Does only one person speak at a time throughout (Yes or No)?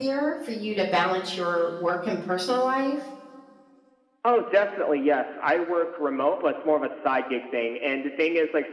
Yes